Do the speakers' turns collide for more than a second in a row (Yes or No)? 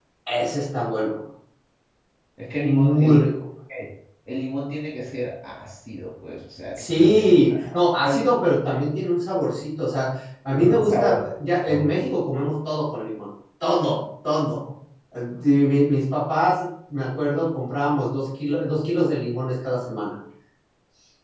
Yes